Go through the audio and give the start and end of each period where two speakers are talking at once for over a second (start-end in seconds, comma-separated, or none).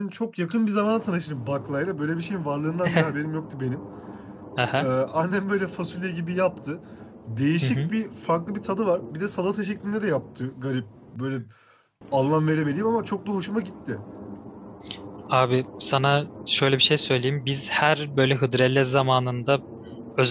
none